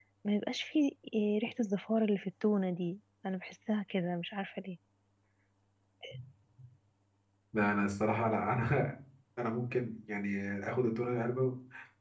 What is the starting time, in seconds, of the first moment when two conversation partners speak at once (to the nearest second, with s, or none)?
none